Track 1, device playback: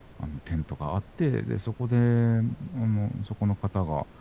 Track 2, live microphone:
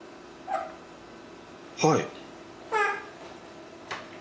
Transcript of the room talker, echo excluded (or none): はい。